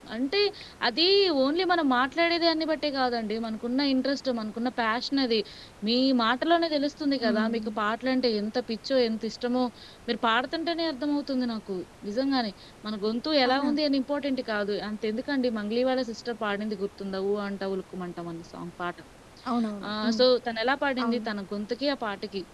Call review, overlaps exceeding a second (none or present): none